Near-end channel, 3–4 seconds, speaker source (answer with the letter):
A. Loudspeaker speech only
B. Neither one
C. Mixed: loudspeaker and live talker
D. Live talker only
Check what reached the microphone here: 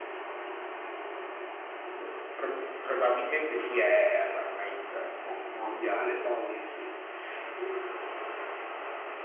A